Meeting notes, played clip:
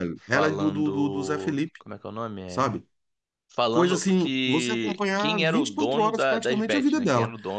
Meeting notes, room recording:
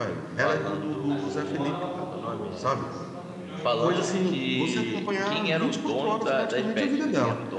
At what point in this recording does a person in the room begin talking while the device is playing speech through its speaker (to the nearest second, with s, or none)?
1 s